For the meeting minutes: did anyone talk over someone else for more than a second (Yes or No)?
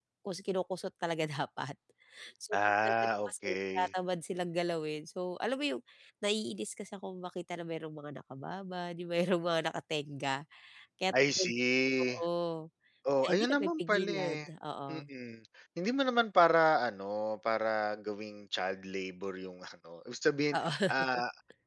Yes